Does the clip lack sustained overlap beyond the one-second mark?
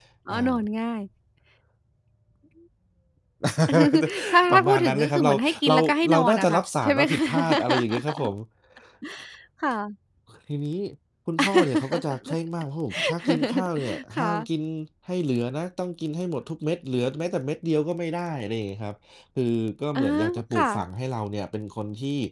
No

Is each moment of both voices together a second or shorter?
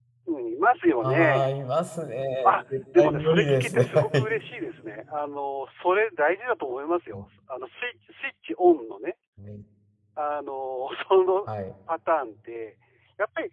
No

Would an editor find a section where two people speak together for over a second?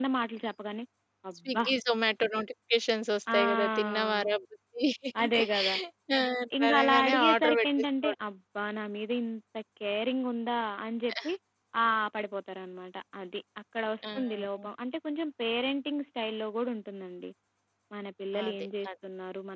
Yes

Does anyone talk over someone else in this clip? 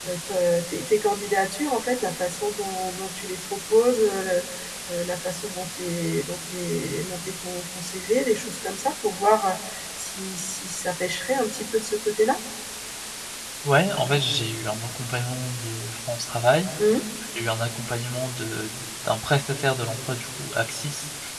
No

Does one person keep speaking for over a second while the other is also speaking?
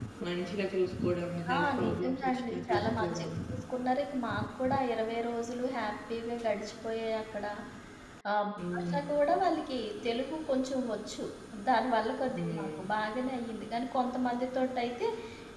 Yes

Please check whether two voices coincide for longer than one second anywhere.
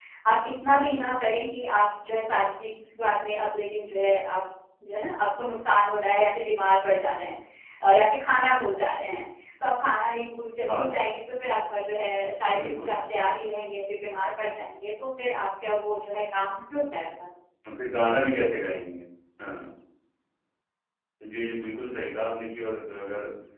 No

